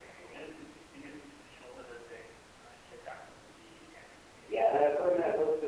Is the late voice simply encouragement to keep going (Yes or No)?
No